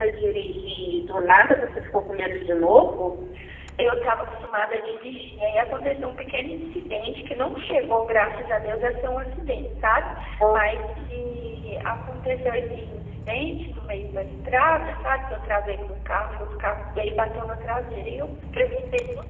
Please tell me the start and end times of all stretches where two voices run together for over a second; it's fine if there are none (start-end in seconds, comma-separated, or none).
none